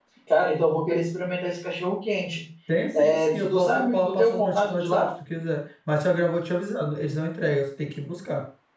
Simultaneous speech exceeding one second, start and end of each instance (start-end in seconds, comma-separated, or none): 3.0-5.1